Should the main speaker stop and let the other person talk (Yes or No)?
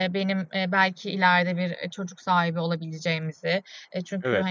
No